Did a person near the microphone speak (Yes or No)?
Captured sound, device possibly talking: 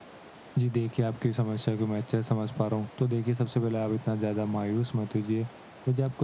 Yes